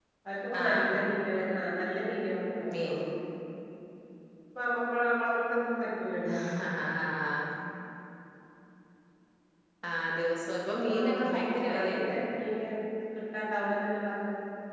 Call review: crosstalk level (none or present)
present